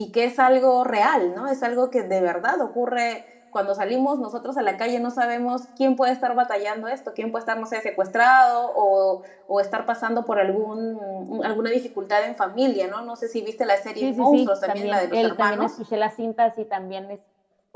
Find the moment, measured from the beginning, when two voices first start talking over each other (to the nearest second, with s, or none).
14 s